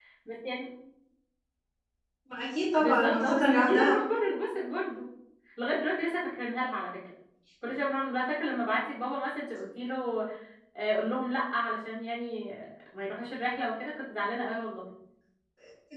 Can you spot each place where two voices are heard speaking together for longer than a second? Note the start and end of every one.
2.8-4.0

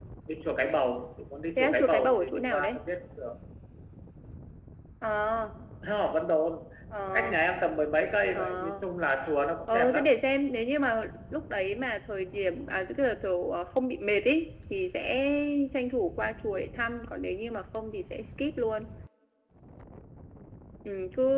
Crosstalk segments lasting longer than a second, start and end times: 1.6-2.8

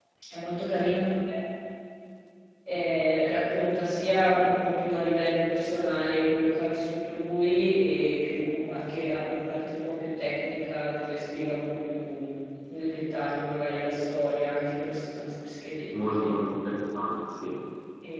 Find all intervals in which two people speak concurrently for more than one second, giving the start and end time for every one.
none

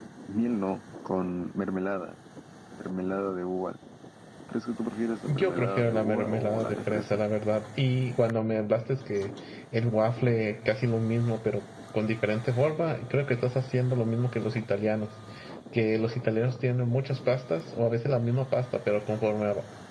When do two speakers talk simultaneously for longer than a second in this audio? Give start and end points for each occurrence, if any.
5.3-7.2

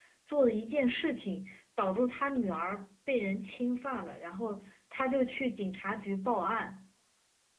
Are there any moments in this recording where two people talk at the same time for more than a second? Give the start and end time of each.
none

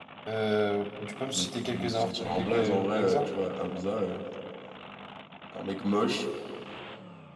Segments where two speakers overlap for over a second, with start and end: 1.4-3.3

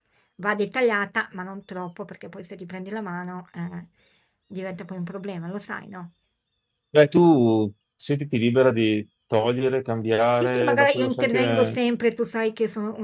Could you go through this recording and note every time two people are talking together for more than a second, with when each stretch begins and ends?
10.4-11.8

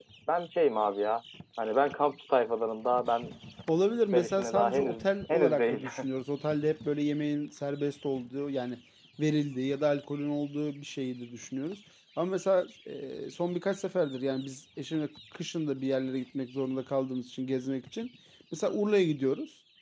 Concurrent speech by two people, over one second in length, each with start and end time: 4.1-5.9

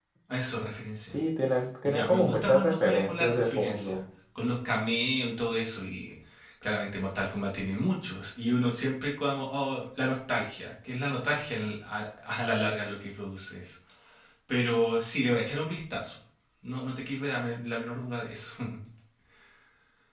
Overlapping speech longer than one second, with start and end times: 1.8-4.0

